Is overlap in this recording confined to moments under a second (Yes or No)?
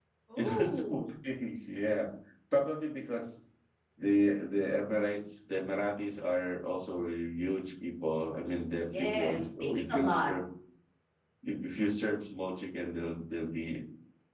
No